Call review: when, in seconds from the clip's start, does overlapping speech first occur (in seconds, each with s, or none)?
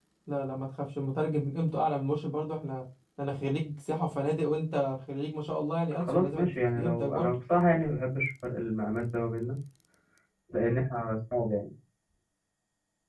6.0 s